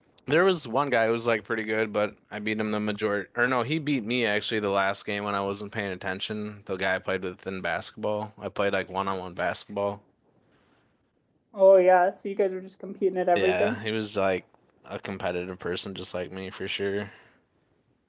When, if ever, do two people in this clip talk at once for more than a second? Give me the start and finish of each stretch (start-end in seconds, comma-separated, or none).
none